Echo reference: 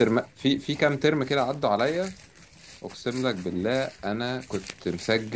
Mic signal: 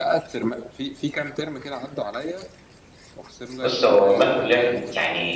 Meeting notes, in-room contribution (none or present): present